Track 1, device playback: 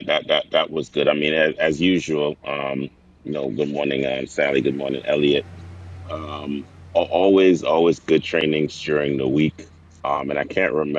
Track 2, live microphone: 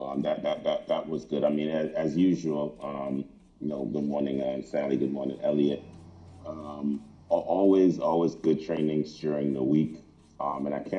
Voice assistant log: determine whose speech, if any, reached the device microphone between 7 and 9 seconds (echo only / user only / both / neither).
echo only